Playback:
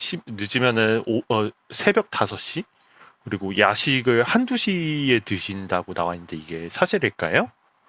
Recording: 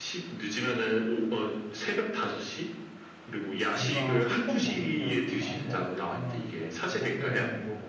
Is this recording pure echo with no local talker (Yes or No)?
No